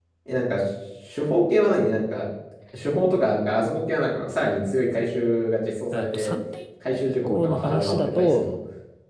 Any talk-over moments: Yes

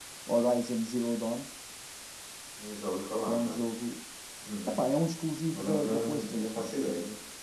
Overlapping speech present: Yes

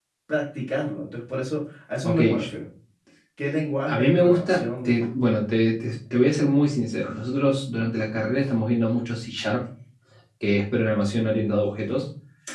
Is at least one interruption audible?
Yes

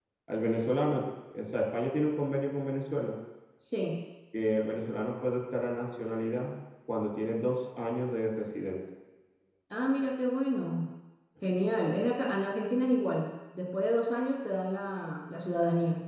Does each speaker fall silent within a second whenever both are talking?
Yes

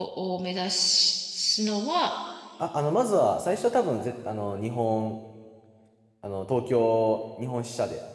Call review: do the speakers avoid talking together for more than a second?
Yes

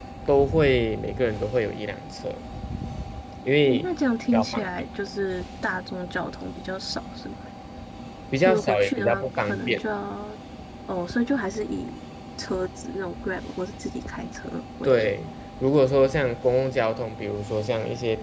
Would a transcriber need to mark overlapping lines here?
Yes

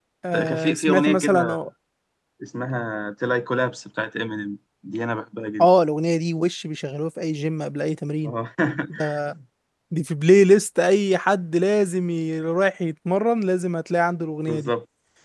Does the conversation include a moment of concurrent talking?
Yes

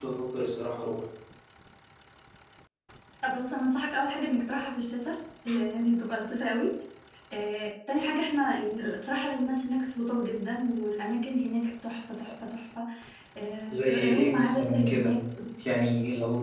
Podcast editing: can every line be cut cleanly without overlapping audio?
No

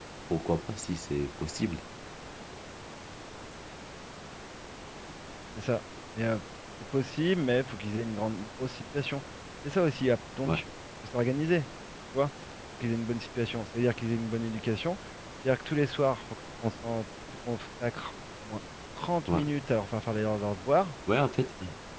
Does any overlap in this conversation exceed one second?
No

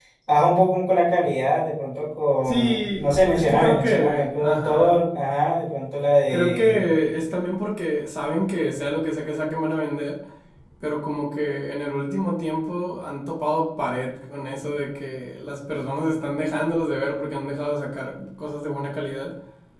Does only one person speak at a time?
No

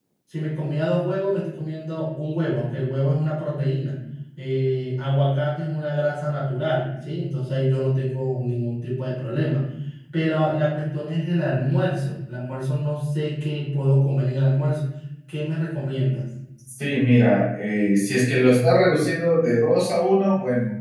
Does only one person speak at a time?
Yes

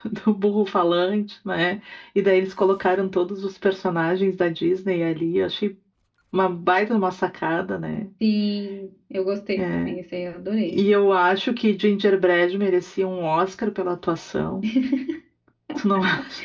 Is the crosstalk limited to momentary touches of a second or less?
Yes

